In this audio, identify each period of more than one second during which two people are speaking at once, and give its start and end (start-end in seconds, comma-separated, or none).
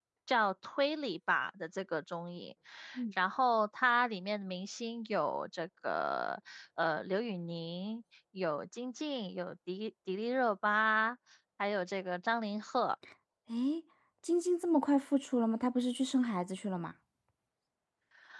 none